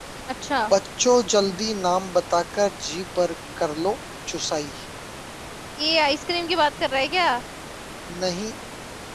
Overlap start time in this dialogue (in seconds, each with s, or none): none